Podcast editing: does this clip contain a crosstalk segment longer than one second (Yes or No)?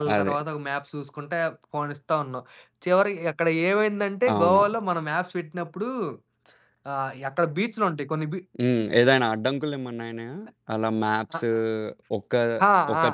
No